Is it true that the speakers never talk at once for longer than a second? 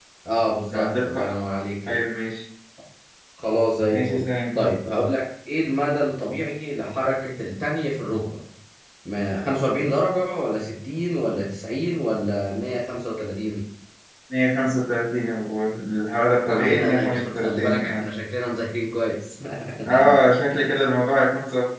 No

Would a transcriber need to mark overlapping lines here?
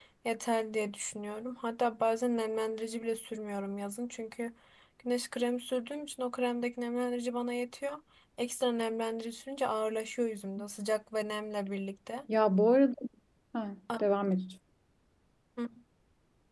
No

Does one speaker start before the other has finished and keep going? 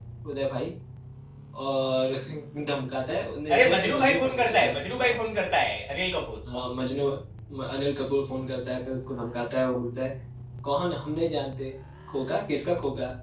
Yes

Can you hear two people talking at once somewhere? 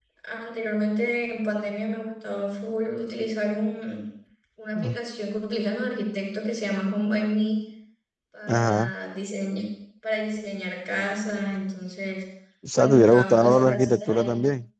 Yes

